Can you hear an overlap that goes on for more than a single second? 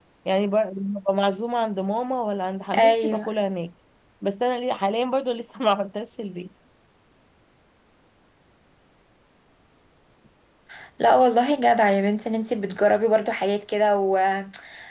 No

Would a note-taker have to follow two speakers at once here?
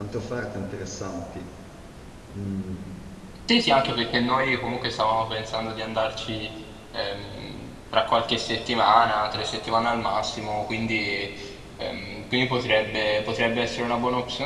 No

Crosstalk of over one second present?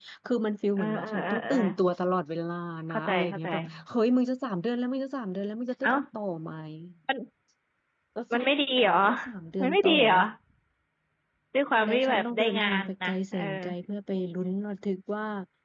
Yes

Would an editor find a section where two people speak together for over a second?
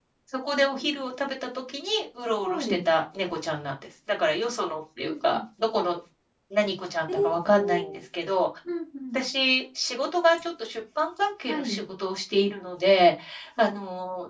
No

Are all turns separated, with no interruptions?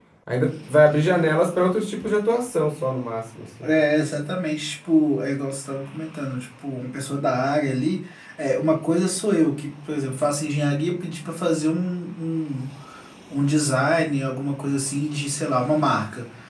Yes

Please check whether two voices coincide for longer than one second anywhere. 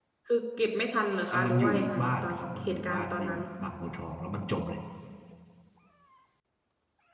Yes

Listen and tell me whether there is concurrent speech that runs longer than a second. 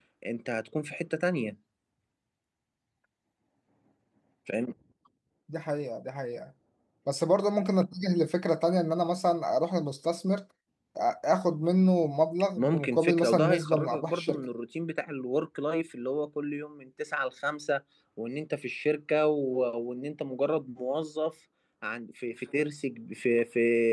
Yes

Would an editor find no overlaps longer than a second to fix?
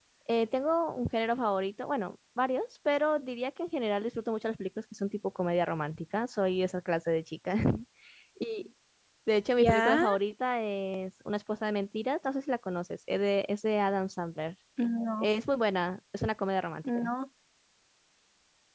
Yes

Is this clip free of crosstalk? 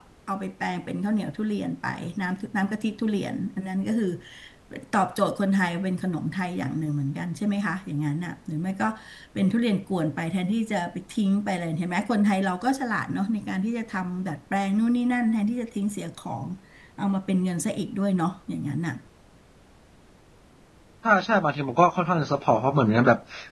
Yes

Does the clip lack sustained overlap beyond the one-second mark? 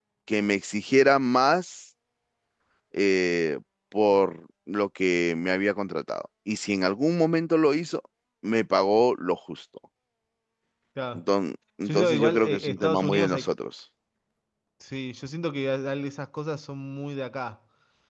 No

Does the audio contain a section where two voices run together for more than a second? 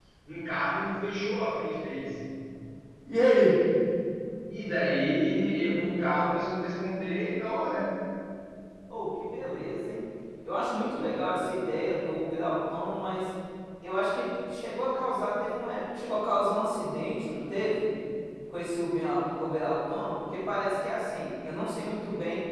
No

